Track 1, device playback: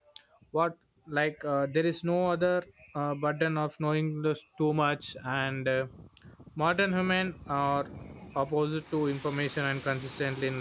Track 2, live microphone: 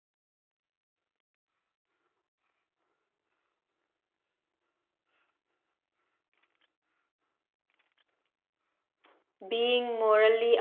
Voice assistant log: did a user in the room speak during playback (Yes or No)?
Yes